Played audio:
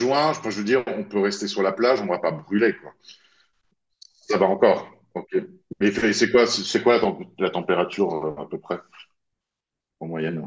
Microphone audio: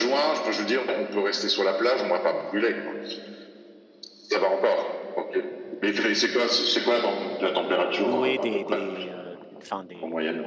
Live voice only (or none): louer des, des, euh, enfin, des,